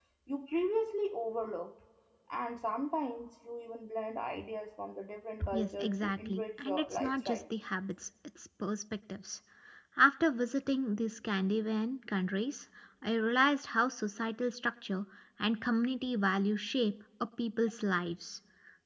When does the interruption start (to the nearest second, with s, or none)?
6 s